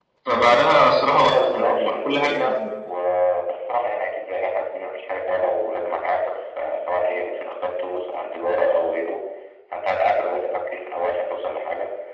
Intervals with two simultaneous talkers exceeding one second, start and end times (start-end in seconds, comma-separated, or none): 1.1-2.6